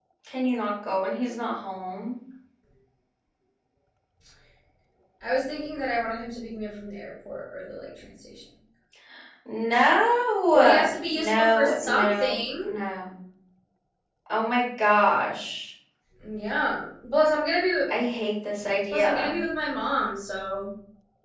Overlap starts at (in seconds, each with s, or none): 10.5 s